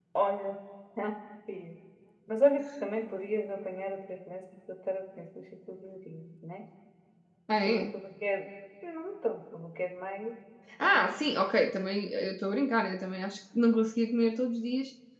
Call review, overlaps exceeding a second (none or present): none